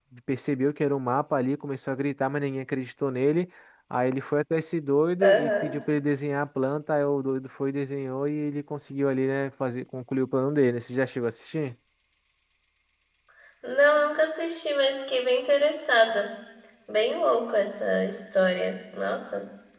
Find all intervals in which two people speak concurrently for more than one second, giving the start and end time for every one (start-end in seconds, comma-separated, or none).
none